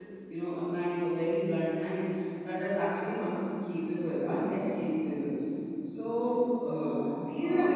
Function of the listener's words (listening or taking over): listening